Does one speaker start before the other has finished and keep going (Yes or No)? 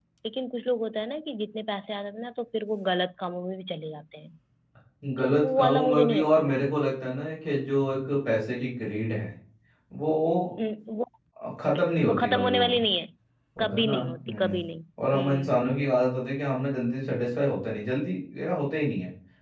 Yes